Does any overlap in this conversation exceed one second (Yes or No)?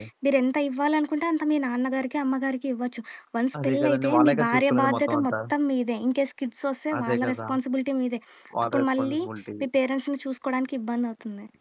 Yes